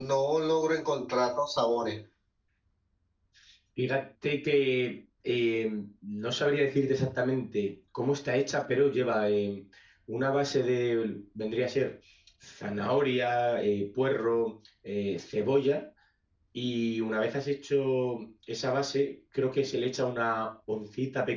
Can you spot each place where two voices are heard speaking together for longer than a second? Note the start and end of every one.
none

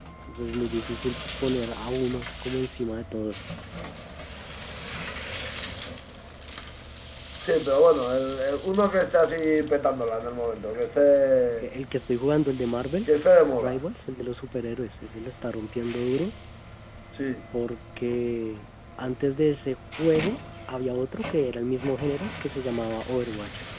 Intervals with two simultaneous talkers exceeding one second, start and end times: none

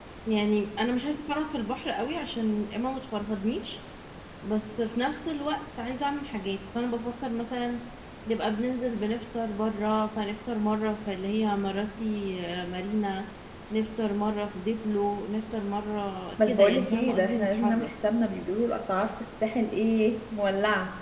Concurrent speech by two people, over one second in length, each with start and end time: 16.4-17.9

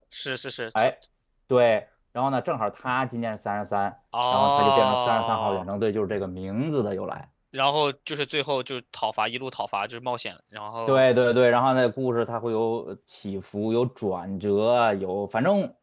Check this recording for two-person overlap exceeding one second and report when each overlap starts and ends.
4.3-5.6

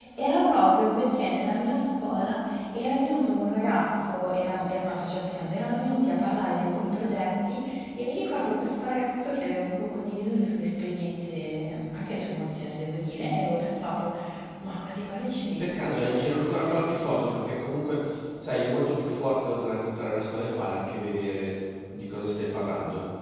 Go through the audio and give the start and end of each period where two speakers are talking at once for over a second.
15.6-17.3

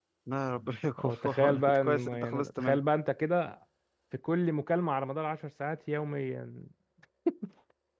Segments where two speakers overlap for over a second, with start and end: 1.0-2.8

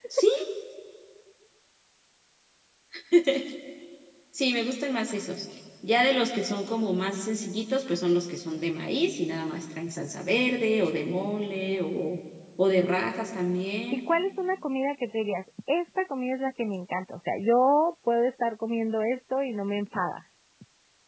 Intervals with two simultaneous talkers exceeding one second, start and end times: none

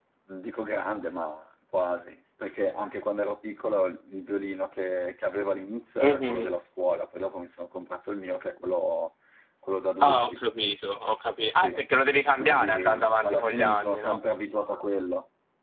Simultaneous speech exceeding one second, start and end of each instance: 12.4-14.2

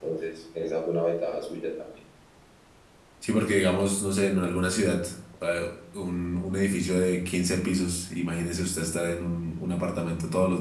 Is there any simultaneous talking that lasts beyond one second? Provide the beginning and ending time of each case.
none

